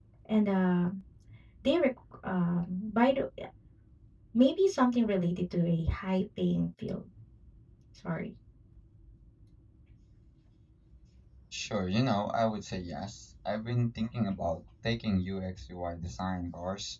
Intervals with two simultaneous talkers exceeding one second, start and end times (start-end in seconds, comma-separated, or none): none